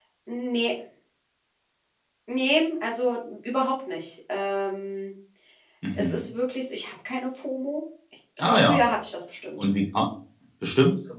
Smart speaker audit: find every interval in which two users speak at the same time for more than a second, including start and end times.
none

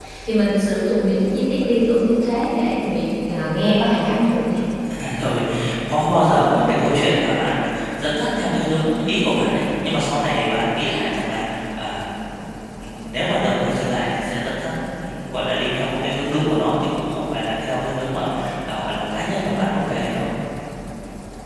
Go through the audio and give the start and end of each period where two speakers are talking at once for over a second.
none

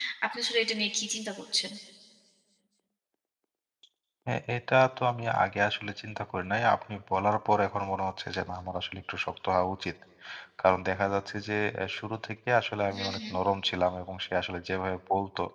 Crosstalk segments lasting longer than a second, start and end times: none

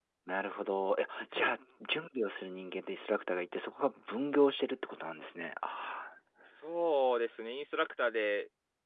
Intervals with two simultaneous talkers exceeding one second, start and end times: none

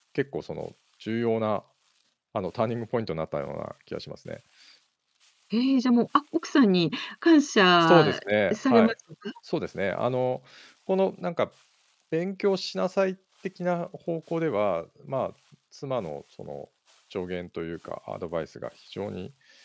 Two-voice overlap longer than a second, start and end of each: none

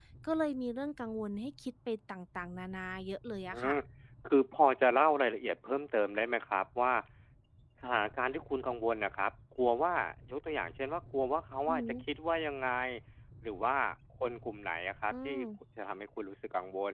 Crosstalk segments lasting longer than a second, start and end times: none

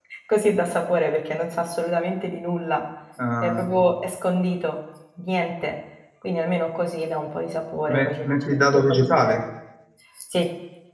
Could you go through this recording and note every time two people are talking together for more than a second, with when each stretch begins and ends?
7.9-9.4

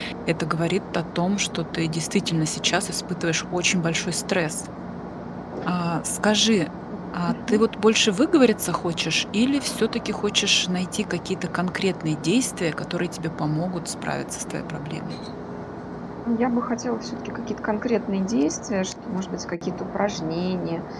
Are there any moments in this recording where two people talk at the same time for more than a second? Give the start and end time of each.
none

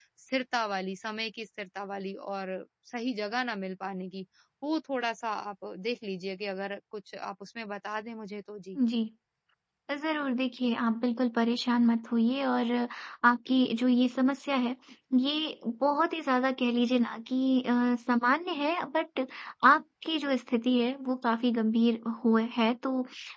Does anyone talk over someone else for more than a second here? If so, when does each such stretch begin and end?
none

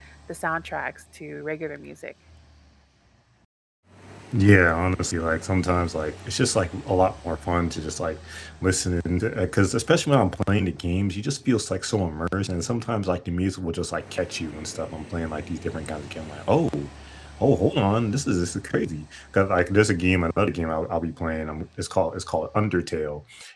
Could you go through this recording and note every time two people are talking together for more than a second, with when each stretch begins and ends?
none

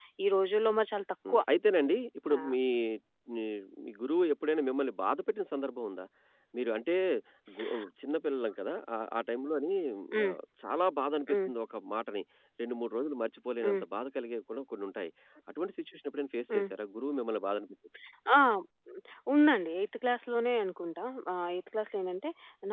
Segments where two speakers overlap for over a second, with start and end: none

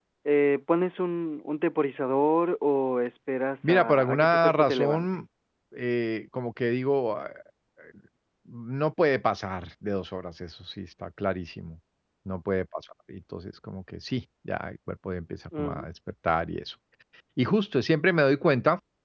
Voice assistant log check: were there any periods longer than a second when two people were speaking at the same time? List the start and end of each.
3.6-5.1

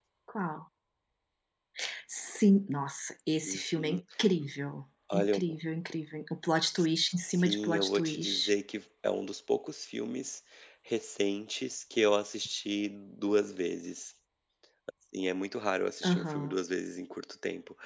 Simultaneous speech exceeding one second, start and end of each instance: 7.2-8.5

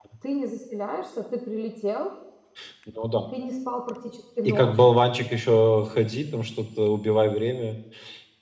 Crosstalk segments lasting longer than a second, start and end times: none

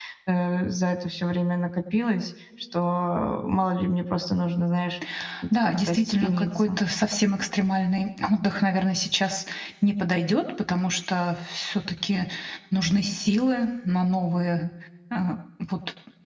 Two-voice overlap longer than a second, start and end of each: 5.5-6.8

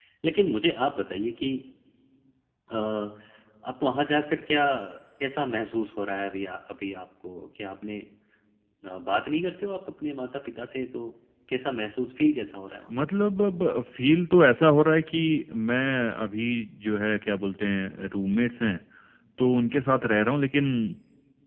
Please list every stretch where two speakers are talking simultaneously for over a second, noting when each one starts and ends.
none

